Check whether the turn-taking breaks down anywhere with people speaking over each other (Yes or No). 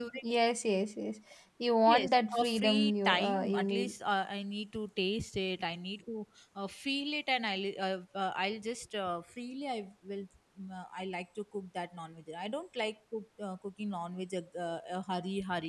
Yes